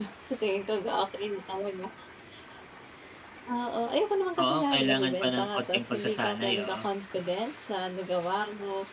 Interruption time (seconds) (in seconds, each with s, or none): 4.4 s